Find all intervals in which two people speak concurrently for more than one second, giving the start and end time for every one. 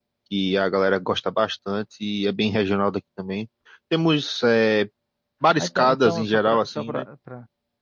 5.6-7.0

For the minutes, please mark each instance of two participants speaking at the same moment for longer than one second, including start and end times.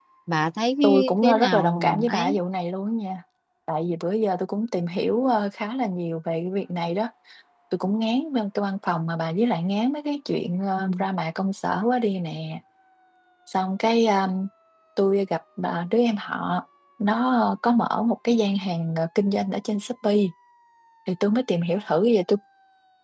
0.8-2.4

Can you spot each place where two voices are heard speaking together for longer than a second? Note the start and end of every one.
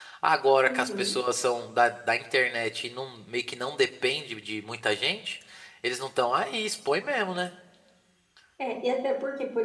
none

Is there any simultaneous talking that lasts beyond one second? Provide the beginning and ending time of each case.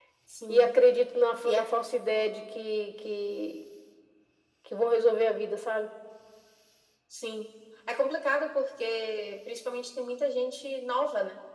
none

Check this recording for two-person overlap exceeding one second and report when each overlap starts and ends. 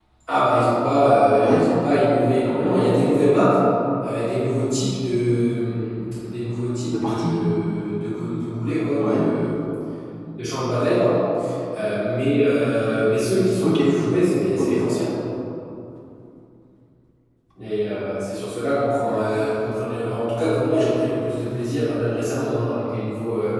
none

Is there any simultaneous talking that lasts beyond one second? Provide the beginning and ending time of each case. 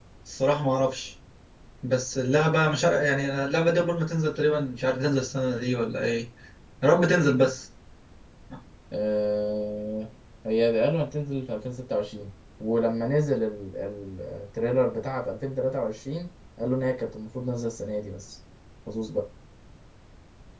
none

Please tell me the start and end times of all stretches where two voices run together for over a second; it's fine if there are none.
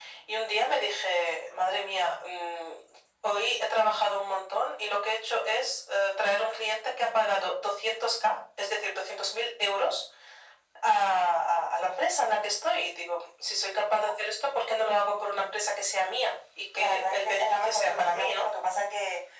16.7-18.5

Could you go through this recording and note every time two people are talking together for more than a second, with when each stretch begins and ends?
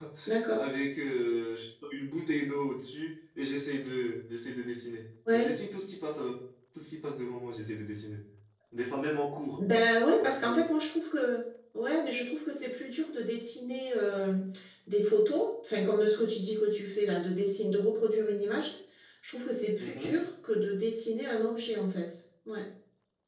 none

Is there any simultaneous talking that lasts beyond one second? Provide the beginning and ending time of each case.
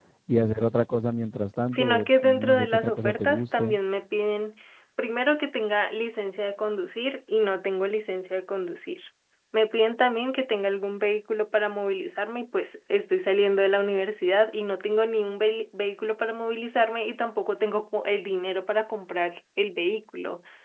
1.7-3.8

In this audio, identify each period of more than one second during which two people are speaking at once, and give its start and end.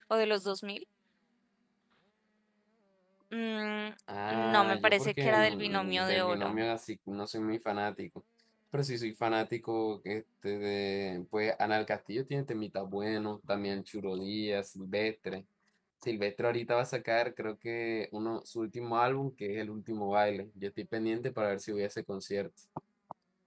4.5-6.6

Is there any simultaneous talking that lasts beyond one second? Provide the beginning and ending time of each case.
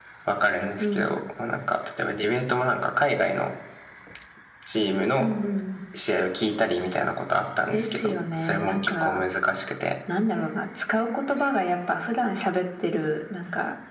7.7-9.2

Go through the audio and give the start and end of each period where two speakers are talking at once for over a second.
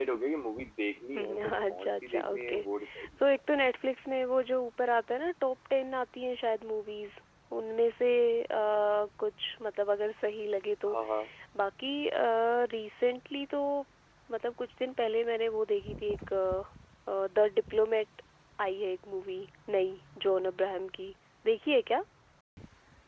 1.2-2.6

